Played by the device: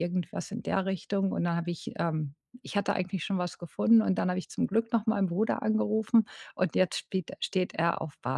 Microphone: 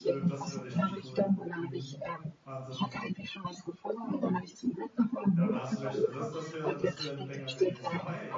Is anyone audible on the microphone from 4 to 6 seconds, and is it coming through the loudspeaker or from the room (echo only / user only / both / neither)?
both